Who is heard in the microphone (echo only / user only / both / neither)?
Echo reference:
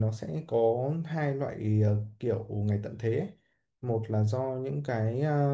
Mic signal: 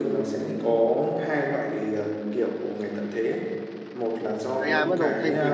both